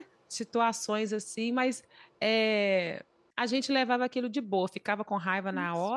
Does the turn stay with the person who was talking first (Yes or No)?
Yes